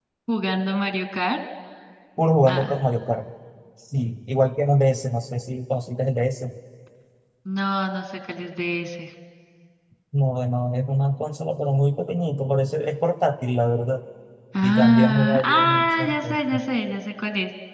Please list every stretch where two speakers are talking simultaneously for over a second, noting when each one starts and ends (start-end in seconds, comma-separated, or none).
14.6-16.2